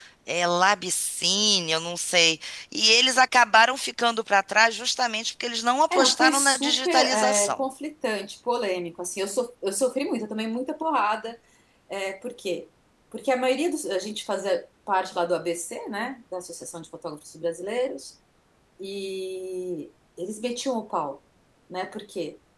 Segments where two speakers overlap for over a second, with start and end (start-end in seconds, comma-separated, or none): 5.9-7.6